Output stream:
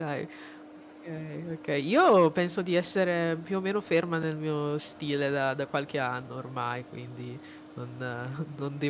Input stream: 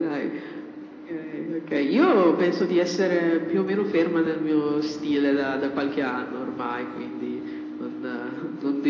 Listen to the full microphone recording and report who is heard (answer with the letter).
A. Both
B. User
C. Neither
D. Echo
D